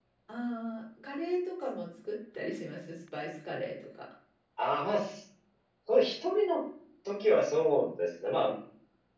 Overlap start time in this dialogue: none

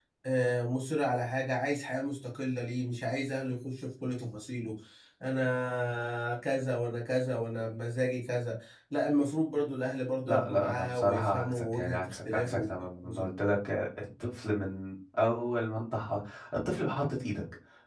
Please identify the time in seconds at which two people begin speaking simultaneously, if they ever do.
10 s

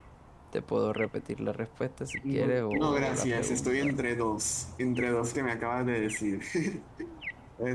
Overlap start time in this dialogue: 2 s

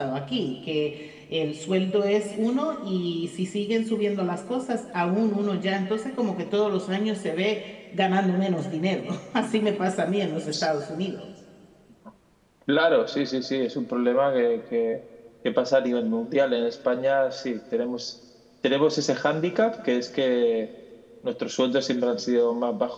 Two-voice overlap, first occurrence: none

